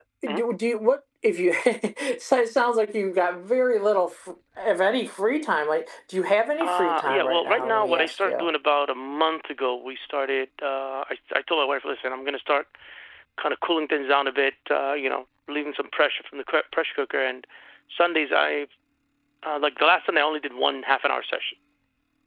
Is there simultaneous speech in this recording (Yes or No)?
Yes